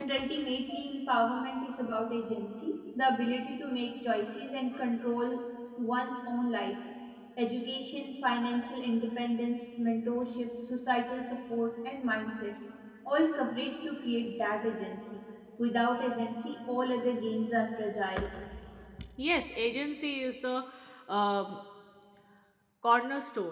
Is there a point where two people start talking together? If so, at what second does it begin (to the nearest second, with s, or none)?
none